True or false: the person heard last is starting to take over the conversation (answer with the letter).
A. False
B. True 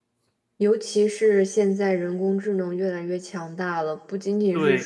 B